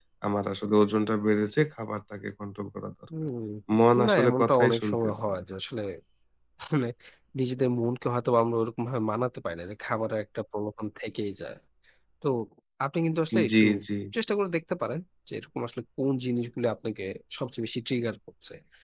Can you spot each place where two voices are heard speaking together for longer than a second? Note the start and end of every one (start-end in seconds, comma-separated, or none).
4.1-5.4